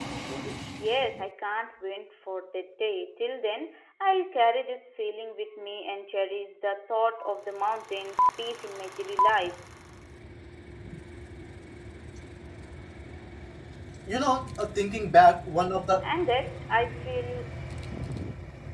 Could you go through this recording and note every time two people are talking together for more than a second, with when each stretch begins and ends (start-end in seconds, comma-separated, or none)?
none